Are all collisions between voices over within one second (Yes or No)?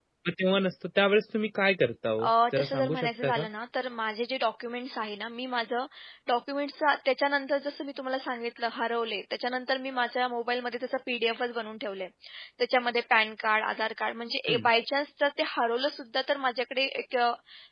No